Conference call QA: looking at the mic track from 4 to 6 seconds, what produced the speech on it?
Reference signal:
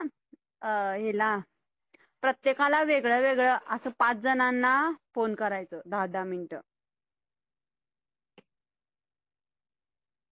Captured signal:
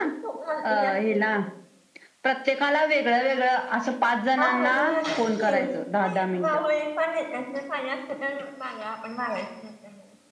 both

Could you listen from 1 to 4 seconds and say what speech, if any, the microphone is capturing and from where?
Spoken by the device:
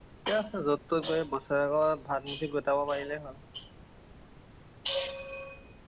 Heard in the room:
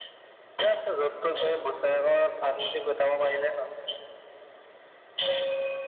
echo only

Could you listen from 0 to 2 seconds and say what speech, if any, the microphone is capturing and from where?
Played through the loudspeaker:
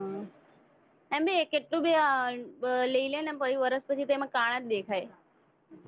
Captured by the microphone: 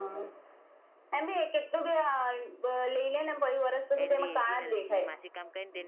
echo only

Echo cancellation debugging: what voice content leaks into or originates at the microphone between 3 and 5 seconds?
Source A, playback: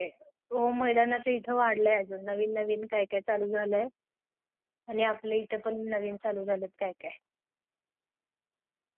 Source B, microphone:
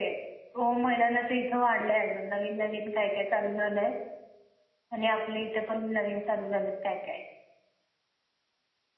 echo only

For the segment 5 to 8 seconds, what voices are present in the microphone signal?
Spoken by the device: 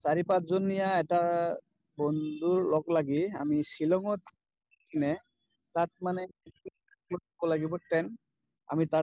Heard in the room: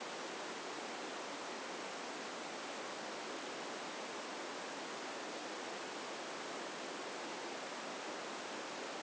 neither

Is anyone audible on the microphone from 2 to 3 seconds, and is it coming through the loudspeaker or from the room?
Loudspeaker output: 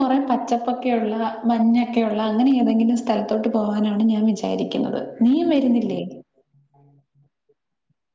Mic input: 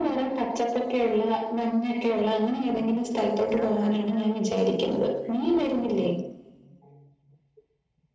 echo only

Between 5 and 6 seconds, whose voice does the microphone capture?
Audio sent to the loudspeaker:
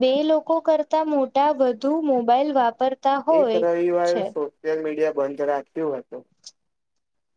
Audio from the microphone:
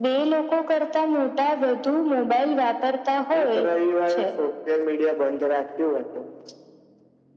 echo only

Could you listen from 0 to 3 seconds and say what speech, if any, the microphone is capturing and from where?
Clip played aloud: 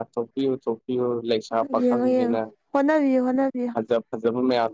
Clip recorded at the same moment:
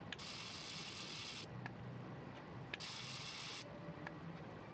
neither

